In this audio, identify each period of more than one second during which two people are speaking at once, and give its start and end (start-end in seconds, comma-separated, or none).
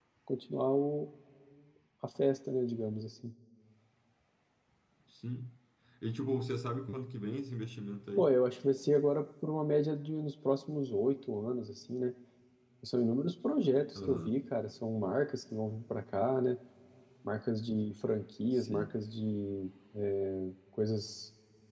none